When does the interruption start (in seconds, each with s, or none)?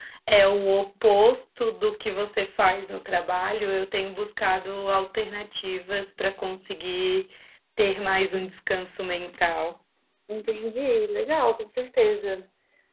none